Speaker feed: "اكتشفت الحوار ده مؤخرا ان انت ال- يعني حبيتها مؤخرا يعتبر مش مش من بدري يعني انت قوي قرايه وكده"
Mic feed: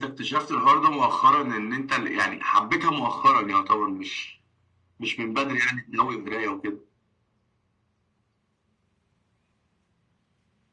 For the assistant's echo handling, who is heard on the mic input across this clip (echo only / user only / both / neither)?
echo only